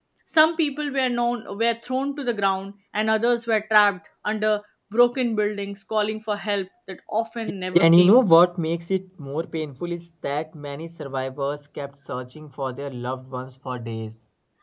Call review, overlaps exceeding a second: none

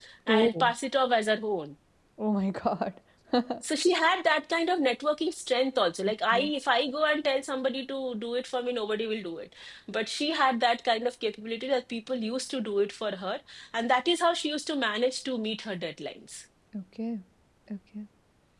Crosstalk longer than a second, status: none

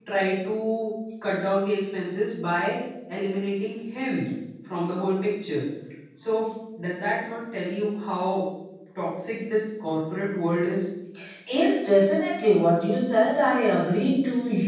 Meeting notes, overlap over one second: none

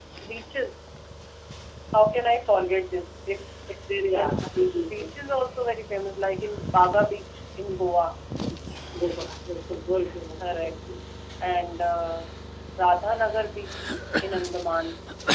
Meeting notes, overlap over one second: present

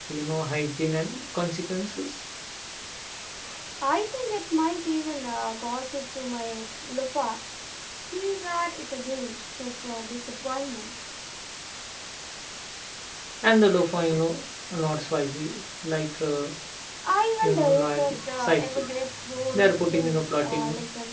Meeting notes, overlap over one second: present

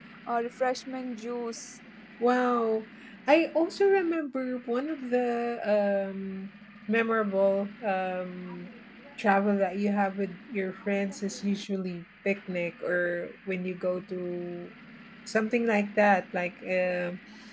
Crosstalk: none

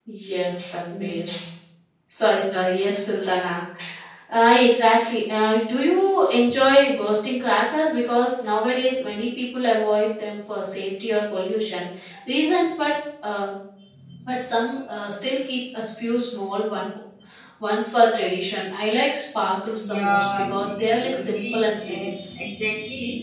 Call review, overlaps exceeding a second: present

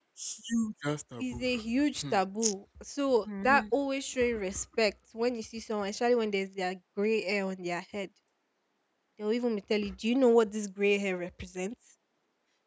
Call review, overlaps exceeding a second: none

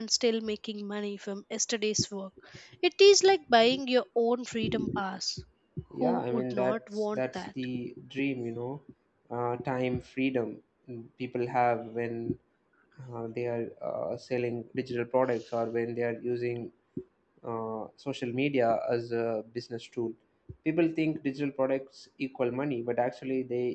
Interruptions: present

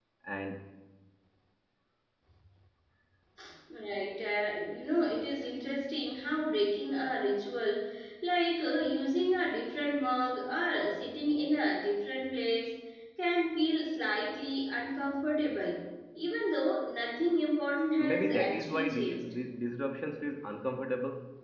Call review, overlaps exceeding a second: present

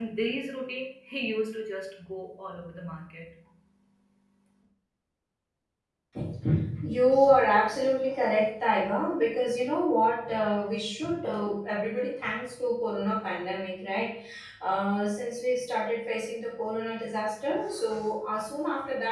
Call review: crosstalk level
none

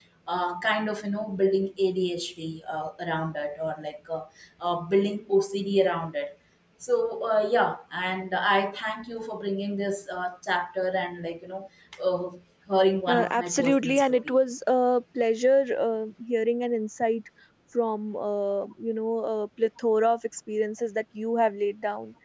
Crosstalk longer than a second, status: present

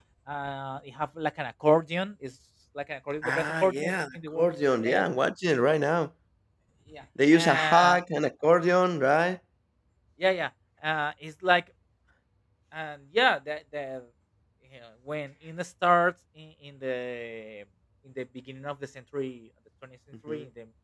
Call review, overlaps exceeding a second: present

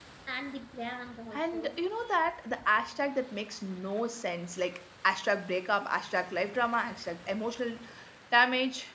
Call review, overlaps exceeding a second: none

